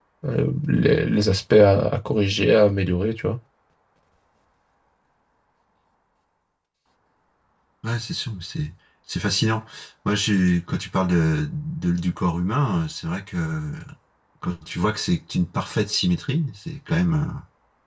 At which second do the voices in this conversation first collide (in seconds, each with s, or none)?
none